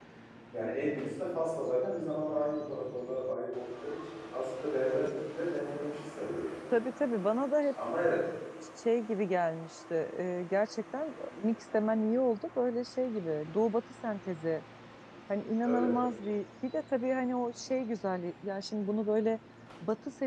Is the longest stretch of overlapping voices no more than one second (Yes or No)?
Yes